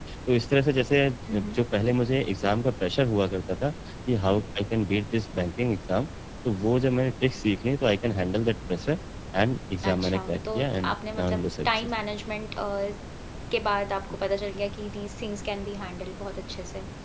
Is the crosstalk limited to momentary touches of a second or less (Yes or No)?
No